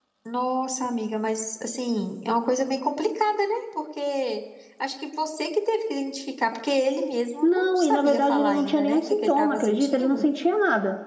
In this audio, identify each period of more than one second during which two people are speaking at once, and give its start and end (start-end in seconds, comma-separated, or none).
7.4-10.2